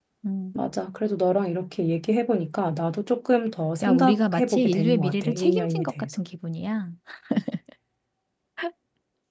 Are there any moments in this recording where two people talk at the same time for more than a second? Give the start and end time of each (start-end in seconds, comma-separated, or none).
3.8-6.2